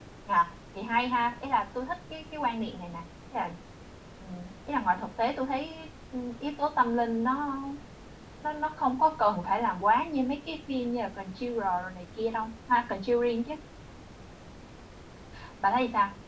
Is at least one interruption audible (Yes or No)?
No